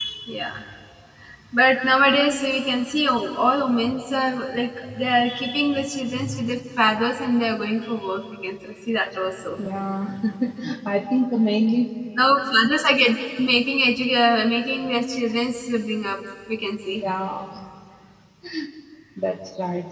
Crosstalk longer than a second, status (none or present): none